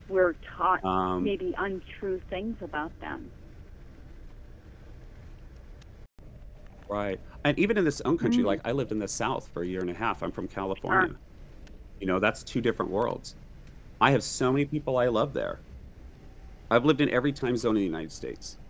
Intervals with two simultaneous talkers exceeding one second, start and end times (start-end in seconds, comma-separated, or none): none